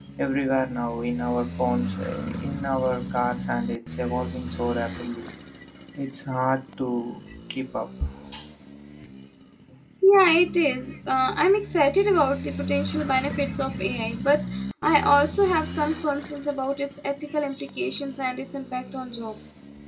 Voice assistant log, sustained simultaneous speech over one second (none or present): none